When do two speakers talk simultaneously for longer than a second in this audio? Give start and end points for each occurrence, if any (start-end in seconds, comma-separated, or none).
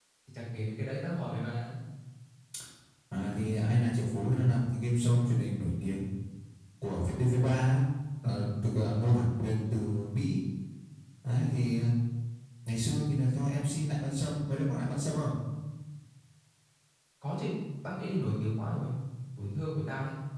none